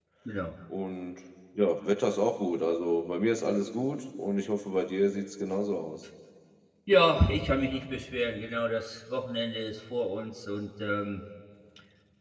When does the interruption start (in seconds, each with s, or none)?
none